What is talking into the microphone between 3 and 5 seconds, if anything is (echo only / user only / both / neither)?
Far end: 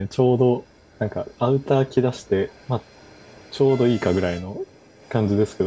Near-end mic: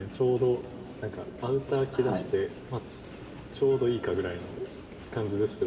echo only